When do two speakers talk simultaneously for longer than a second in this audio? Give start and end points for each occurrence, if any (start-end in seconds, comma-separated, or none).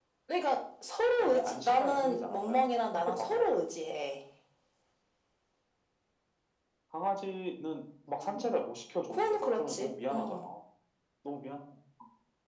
1.2-3.4, 9.1-10.4